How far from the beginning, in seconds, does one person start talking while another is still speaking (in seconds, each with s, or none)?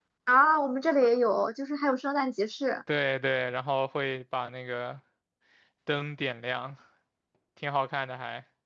none